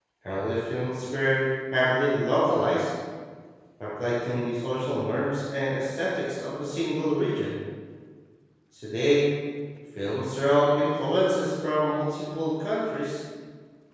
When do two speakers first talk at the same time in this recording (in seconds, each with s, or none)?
none